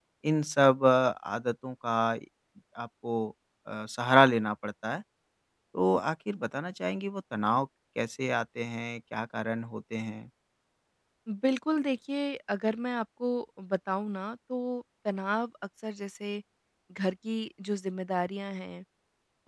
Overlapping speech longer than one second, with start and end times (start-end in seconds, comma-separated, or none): none